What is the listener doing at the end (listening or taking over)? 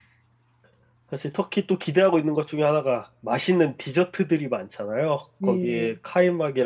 listening